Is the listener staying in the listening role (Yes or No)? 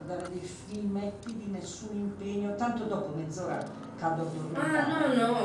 No